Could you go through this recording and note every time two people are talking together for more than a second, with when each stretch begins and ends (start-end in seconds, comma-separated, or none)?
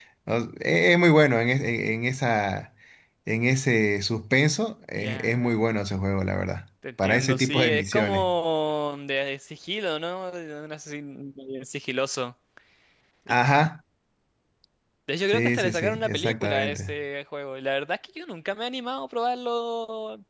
7.0-8.3, 15.3-17.0